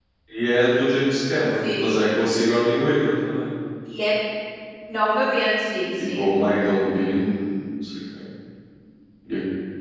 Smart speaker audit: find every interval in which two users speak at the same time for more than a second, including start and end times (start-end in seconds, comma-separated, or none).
none